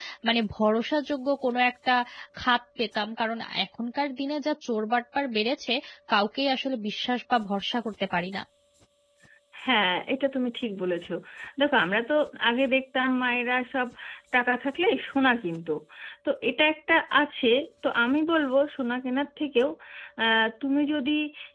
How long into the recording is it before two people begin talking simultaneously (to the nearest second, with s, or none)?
none